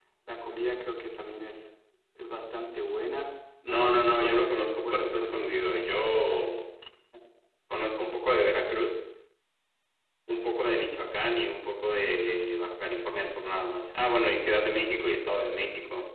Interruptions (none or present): present